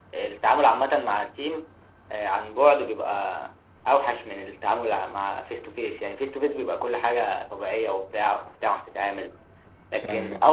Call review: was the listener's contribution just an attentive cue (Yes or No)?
Yes